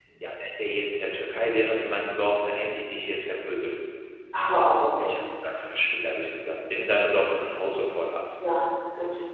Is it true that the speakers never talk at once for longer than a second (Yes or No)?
Yes